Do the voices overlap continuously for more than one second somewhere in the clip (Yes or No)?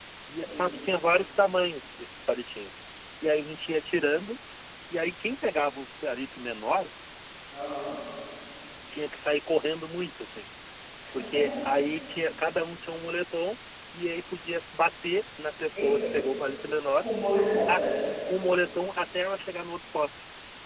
No